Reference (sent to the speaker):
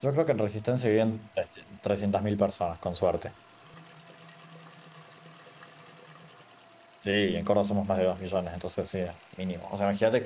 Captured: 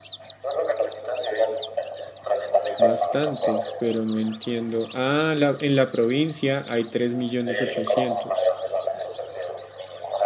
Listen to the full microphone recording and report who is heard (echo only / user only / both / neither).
both